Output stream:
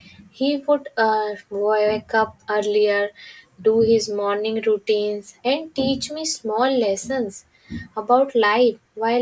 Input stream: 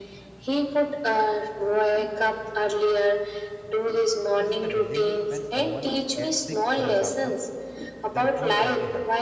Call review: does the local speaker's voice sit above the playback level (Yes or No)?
No